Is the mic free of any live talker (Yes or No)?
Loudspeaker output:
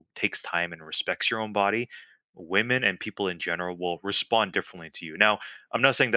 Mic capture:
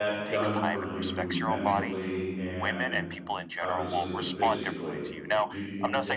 No